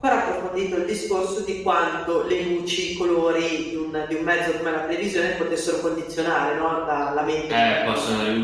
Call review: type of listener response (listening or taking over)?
taking over